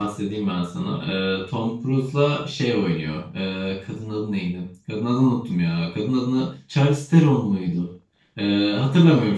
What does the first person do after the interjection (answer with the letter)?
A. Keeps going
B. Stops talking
A